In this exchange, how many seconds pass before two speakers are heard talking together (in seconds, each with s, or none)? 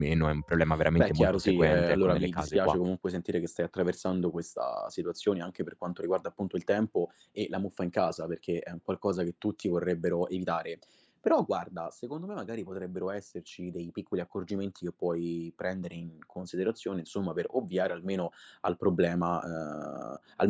1.0 s